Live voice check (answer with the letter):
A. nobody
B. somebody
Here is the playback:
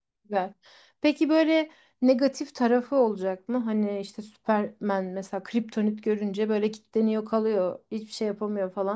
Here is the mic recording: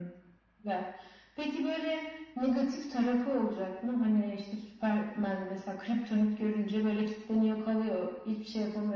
A